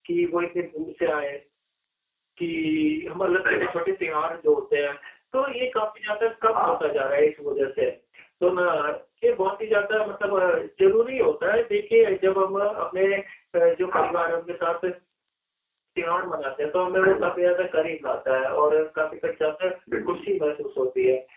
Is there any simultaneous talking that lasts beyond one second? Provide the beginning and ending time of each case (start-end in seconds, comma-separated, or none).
none